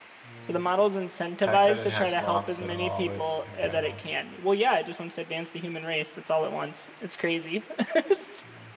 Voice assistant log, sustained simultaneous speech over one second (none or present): present